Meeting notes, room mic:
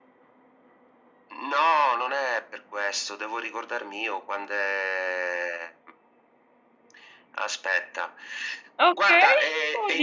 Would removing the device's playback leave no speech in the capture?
No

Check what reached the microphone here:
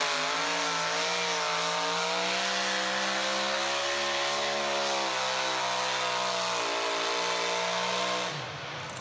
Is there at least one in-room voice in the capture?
No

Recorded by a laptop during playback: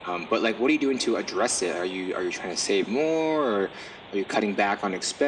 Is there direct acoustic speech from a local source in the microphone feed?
No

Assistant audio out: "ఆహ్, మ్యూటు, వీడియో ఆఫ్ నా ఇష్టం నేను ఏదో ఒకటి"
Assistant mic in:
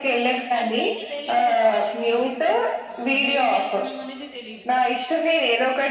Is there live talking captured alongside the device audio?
Yes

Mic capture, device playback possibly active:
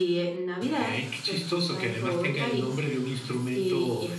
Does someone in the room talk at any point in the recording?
No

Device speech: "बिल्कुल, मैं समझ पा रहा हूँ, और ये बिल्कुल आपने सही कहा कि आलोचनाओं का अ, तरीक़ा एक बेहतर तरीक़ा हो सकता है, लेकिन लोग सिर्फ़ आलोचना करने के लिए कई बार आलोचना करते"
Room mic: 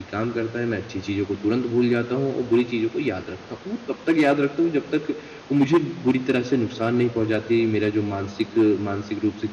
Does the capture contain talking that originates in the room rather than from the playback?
Yes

